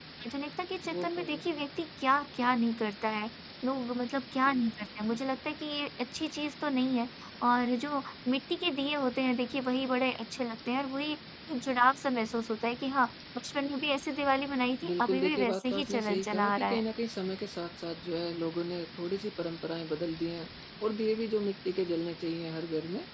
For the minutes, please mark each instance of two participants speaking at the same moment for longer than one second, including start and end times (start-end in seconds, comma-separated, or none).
14.8-16.8